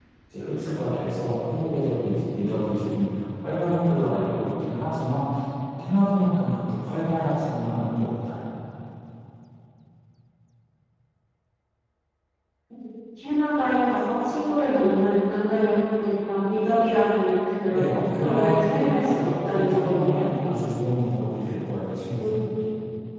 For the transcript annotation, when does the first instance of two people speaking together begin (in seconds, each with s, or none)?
17.7 s